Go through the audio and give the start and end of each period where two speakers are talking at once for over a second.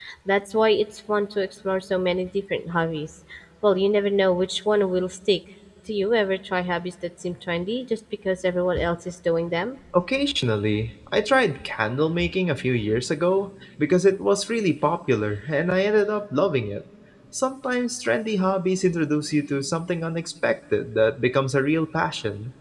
none

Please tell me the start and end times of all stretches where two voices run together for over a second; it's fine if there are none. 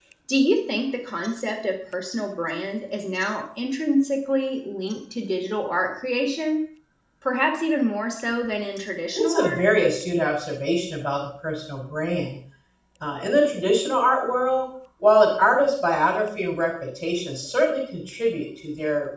none

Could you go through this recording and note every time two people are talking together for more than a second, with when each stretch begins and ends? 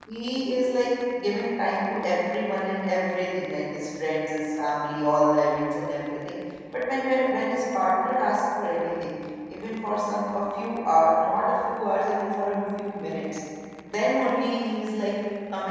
none

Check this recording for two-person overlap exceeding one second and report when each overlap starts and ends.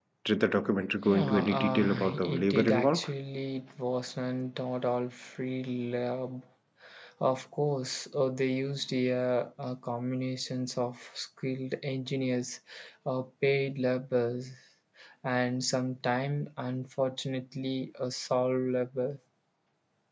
1.1-3.1

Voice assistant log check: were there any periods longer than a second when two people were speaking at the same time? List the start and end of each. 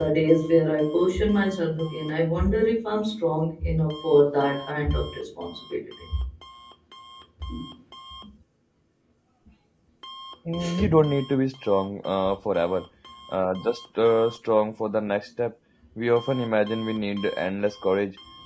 none

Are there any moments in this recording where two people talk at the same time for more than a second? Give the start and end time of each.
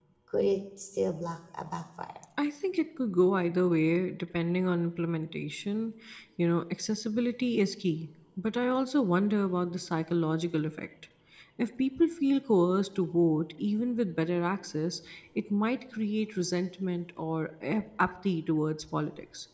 none

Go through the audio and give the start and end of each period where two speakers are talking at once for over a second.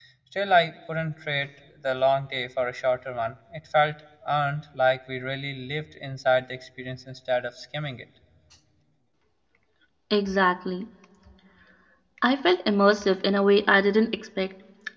none

